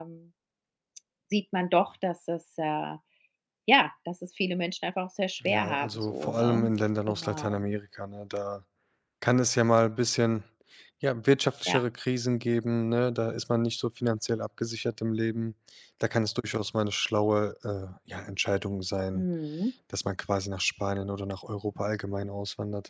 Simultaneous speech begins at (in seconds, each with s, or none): 5.4 s